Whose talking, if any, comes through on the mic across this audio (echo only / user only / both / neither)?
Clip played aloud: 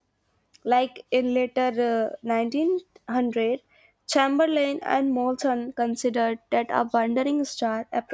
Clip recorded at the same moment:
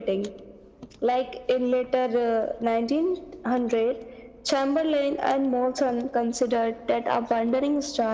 echo only